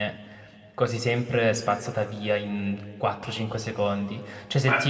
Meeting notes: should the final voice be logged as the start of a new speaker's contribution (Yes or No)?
No